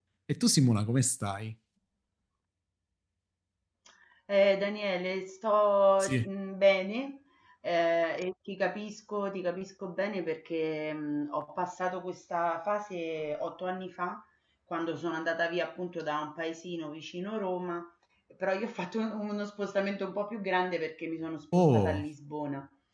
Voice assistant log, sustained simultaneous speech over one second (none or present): none